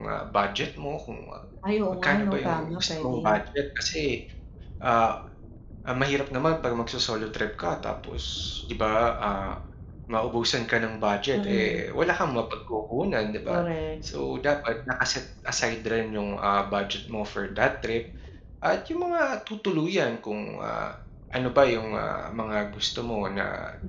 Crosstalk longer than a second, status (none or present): present